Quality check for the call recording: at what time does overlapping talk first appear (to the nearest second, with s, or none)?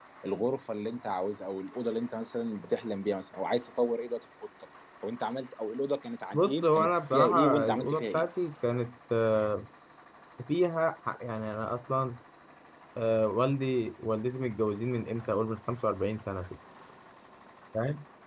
6 s